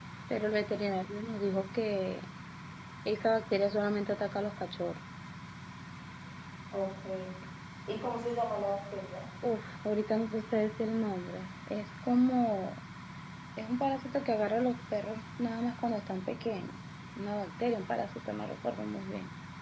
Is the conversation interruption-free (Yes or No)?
Yes